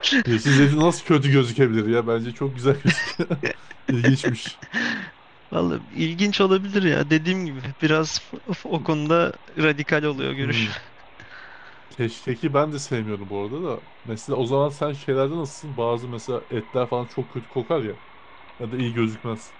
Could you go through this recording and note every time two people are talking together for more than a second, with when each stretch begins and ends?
none

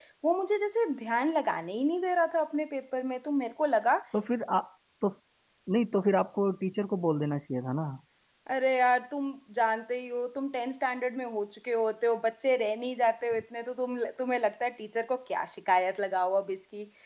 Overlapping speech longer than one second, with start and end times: none

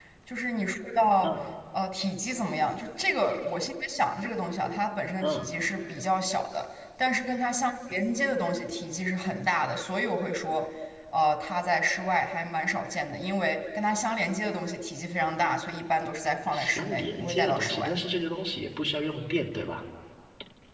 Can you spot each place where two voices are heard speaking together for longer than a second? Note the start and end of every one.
16.5-17.9

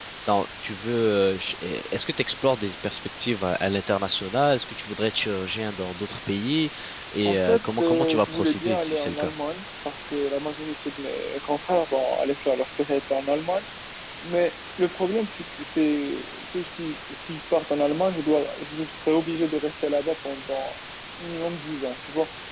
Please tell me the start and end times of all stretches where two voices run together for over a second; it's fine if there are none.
7.2-9.3

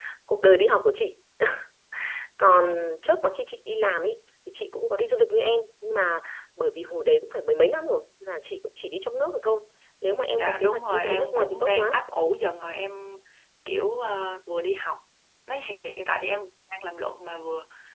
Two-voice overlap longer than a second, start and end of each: 10.4-12.0

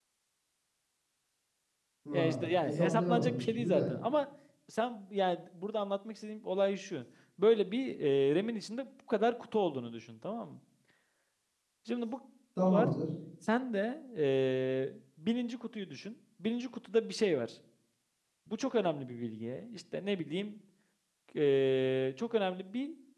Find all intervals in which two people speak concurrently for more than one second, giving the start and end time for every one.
2.1-3.8

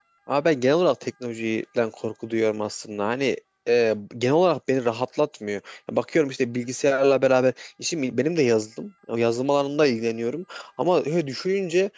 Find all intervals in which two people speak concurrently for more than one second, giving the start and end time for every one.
none

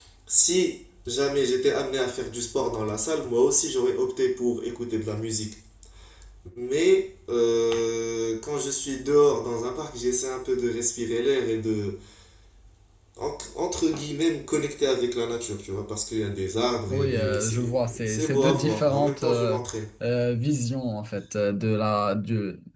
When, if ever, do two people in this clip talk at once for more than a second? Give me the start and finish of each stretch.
16.9-19.6

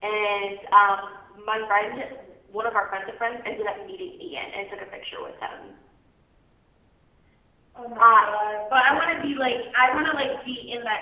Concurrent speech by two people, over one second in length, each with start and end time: none

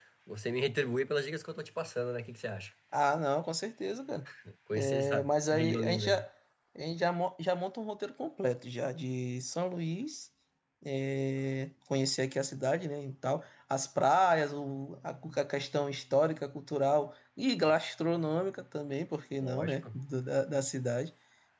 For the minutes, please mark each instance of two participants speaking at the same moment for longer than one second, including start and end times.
4.7-6.2

